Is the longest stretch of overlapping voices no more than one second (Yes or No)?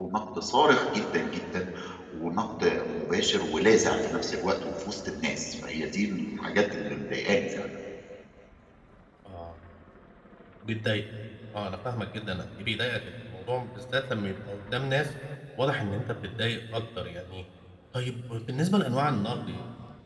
Yes